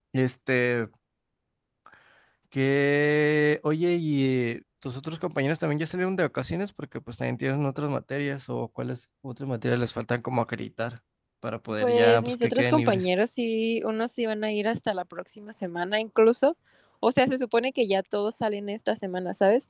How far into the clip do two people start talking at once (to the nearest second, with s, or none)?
12 s